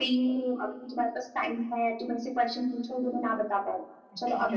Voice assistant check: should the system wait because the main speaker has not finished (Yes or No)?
No